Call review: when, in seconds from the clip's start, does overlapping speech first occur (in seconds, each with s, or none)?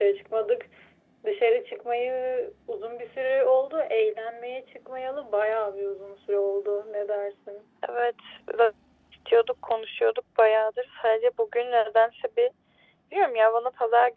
none